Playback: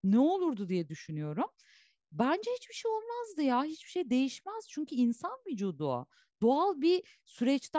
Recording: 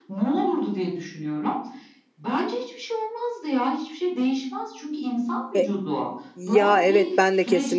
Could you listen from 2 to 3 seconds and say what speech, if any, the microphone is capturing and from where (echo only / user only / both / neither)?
echo only